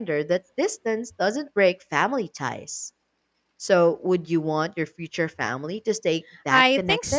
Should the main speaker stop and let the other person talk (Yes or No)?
Yes